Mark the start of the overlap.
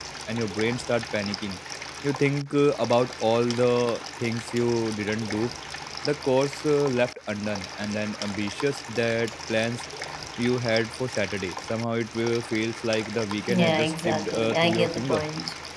13 s

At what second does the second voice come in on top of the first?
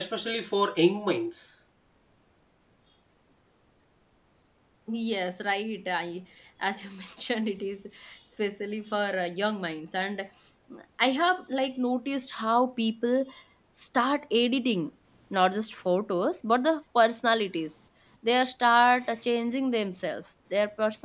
none

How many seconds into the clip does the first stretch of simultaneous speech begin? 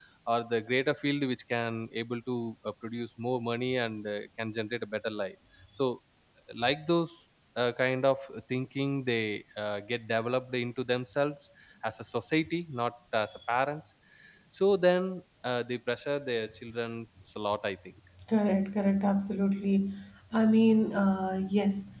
none

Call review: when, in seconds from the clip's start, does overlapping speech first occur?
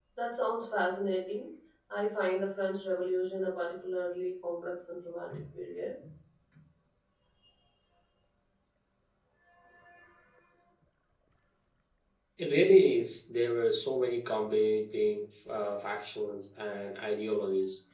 none

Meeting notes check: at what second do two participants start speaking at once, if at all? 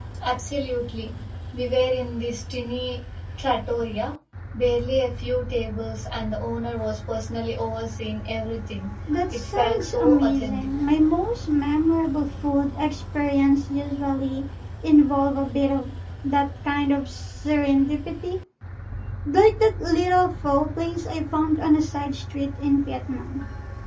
9 s

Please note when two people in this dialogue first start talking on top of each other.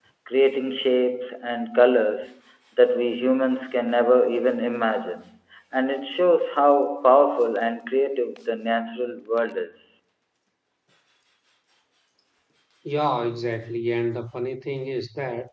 none

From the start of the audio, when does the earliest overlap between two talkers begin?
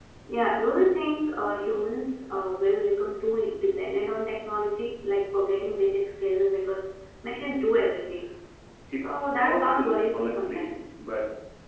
9 s

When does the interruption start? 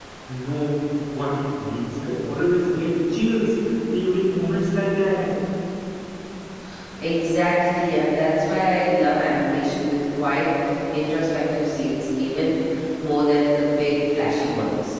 none

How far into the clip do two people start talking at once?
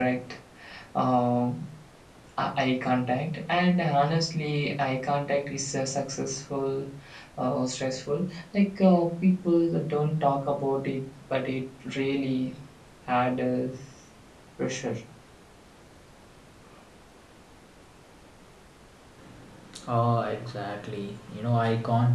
none

